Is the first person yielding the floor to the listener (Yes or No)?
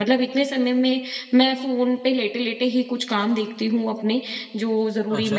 No